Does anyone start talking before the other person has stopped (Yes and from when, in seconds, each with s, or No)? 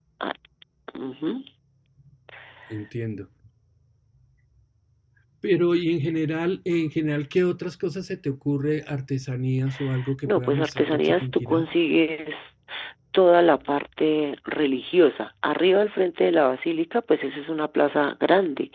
Yes, from 10.2 s